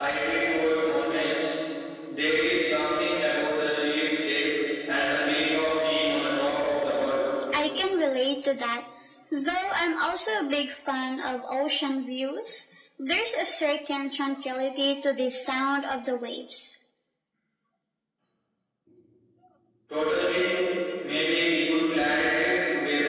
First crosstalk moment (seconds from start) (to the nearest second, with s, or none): none